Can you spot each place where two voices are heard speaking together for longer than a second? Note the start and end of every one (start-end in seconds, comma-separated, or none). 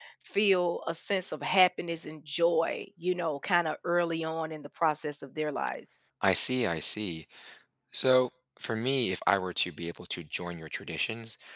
none